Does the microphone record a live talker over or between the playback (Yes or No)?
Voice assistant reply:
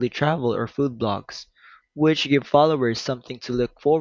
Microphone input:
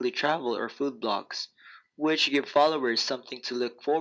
No